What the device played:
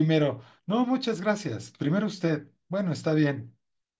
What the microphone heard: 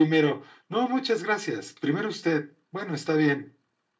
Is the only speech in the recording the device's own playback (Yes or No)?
Yes